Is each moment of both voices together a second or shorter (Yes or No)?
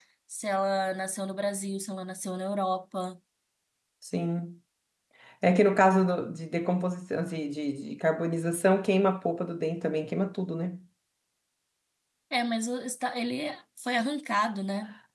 Yes